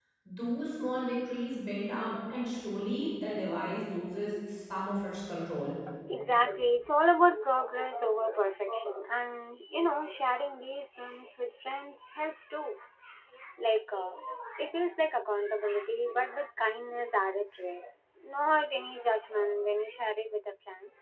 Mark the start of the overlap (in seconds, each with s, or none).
none